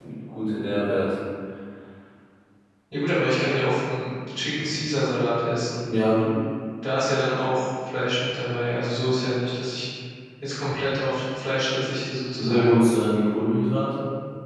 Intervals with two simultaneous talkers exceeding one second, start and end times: none

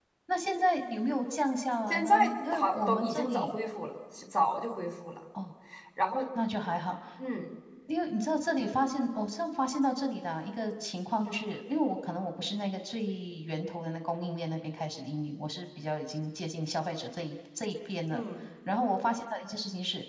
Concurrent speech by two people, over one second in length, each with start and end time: 1.9-3.6

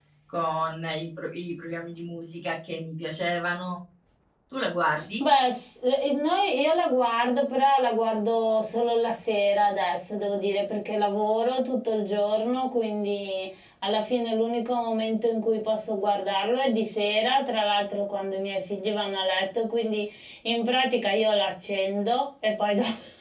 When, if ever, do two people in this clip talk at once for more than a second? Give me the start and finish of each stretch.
none

